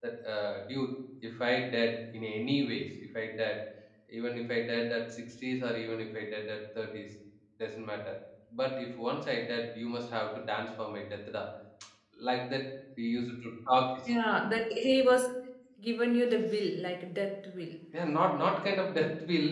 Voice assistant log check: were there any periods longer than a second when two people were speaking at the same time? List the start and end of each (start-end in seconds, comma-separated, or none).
none